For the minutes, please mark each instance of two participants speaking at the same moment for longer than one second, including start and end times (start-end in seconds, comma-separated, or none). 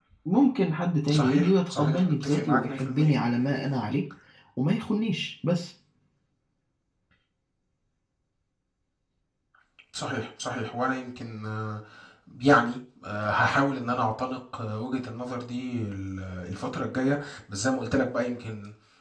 1.1-3.1